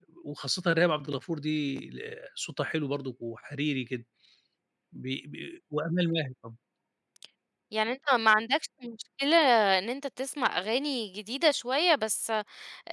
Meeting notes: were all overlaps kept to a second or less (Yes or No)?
Yes